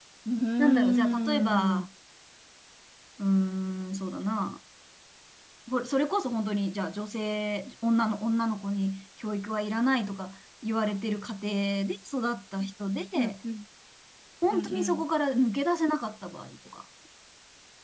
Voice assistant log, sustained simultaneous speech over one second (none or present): present